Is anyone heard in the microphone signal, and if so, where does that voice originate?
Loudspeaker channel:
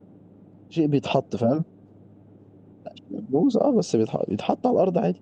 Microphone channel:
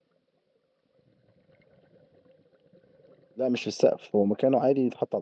user only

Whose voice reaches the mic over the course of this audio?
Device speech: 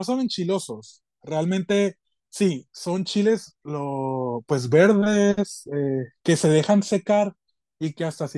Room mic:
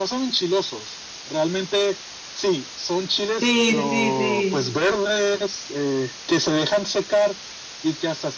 both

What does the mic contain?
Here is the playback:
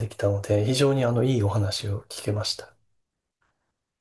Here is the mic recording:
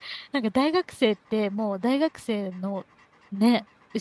user only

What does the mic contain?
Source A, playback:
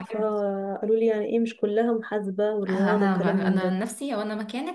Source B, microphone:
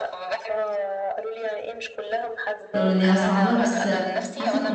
both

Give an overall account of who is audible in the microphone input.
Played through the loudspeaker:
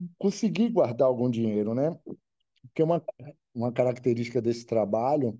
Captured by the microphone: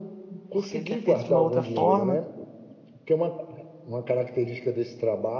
both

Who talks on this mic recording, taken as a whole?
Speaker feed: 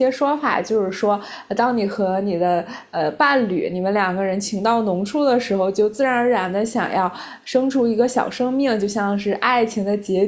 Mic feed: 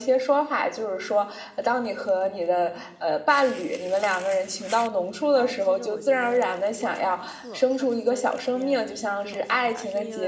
both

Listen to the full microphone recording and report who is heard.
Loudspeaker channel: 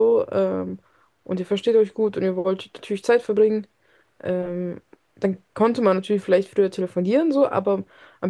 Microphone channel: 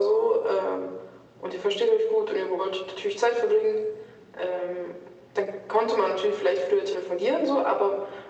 echo only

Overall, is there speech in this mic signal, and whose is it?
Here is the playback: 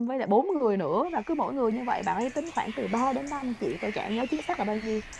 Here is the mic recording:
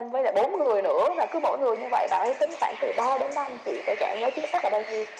echo only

